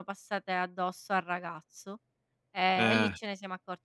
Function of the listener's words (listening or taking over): listening